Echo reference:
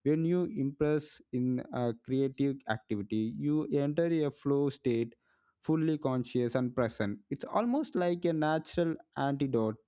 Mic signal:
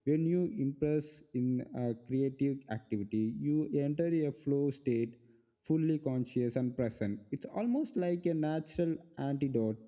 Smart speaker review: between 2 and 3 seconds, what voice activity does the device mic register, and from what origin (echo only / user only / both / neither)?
echo only